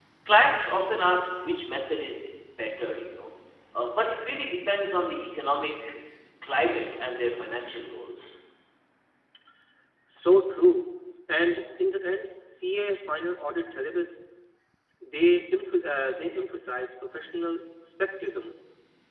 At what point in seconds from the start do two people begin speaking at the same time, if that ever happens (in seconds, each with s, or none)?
none